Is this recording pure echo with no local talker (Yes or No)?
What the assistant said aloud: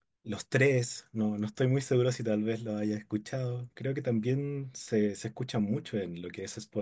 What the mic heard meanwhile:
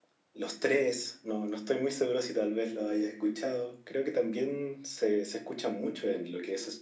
Yes